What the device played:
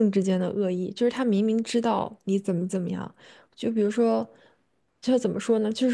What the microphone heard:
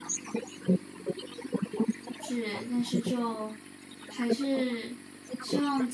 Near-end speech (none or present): present